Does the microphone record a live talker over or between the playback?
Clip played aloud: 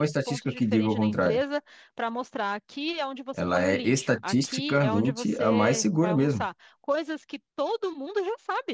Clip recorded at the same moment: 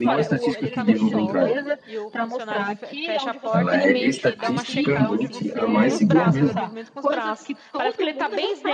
Yes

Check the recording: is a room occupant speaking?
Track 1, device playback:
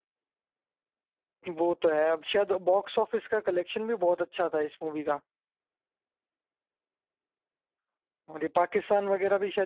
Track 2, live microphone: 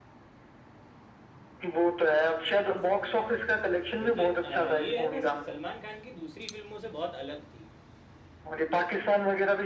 Yes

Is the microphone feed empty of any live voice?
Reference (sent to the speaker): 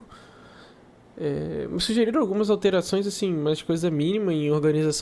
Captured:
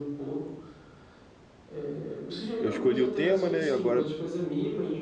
No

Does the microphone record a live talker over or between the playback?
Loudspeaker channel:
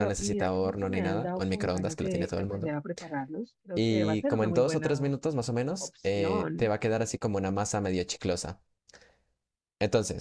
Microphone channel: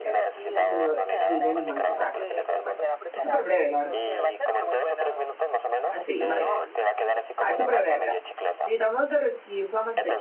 Yes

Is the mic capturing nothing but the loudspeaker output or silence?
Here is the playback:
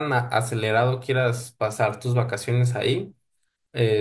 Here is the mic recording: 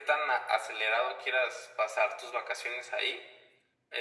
Yes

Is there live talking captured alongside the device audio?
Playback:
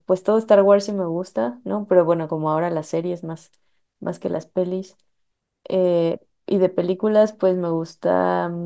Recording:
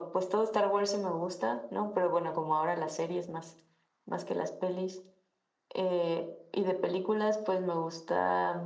No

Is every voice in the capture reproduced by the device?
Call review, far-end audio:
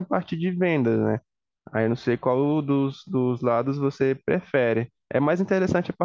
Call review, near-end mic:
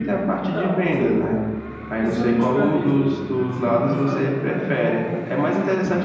No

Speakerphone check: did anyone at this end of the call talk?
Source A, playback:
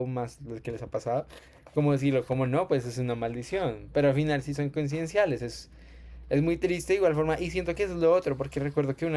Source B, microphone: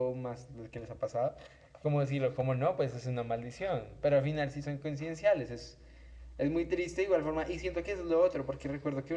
No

